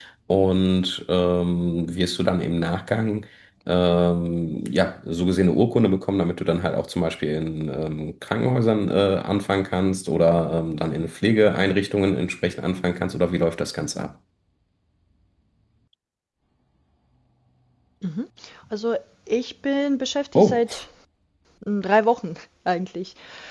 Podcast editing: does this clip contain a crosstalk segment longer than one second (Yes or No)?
No